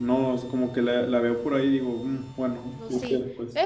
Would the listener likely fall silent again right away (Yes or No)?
No